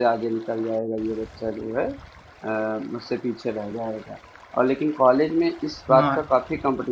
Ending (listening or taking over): listening